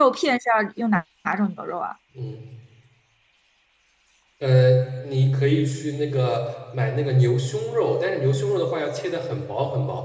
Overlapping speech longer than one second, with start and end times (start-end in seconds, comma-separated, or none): none